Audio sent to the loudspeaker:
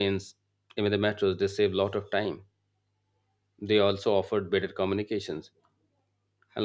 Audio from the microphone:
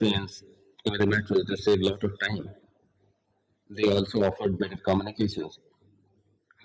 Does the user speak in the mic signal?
No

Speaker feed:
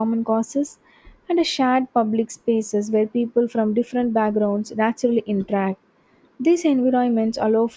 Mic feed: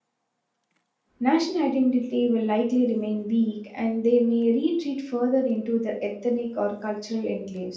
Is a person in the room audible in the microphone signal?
Yes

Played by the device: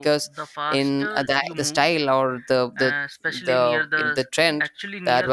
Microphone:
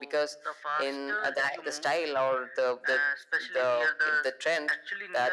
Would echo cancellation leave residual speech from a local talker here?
No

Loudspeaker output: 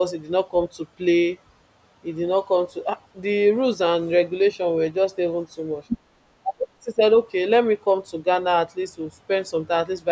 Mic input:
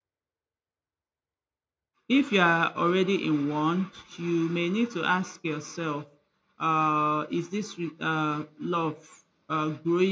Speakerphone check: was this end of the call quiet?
No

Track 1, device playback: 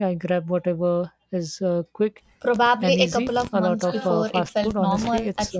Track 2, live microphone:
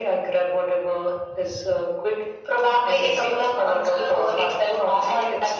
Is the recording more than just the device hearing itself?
No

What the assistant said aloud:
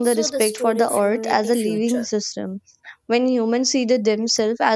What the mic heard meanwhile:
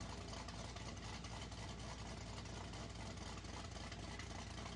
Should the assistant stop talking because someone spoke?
No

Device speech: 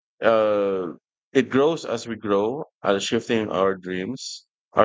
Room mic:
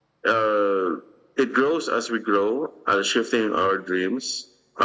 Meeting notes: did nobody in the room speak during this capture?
Yes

